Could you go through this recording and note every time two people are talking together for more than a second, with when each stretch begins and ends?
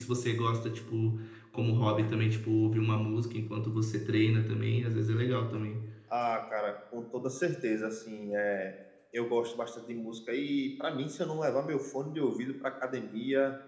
none

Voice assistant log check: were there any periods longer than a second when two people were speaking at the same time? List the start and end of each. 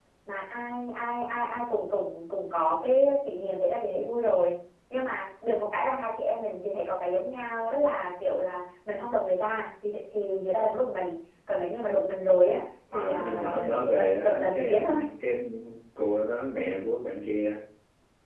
12.9-15.0

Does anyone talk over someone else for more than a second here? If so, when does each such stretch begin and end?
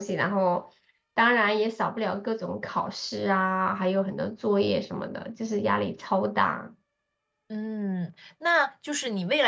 none

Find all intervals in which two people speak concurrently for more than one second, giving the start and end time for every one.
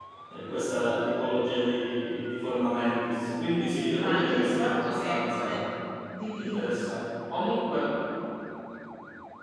4.0-5.6

